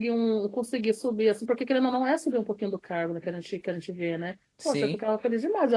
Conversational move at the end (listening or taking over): listening